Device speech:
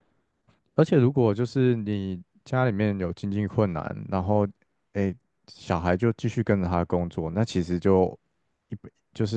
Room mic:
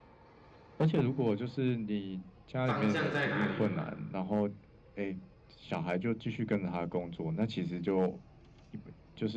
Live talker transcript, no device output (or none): 方向在哪里了嘛。